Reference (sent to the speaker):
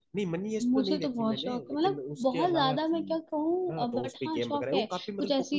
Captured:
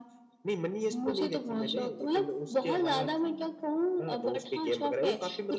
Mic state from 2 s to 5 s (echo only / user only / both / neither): echo only